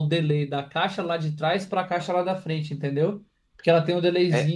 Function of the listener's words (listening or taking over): listening